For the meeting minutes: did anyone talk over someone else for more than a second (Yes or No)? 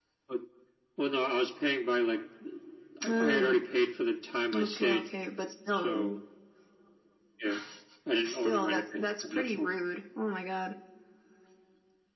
Yes